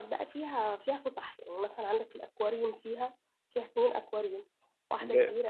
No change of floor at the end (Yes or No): No